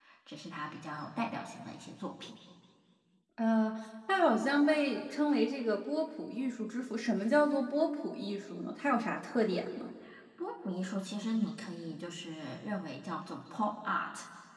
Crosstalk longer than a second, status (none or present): none